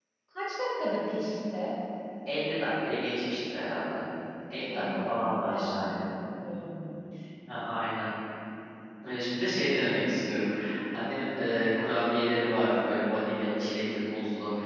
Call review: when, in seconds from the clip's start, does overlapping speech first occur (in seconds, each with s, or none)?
4.7 s